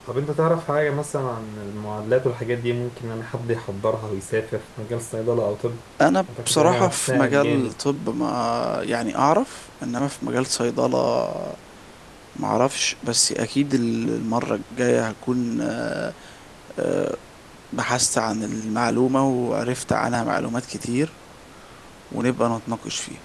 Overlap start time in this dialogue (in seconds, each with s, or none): 6.5 s